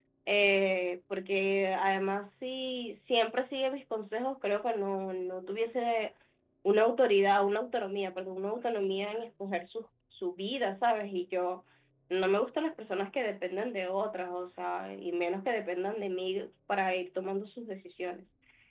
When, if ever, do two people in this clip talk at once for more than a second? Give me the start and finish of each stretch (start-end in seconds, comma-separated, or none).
none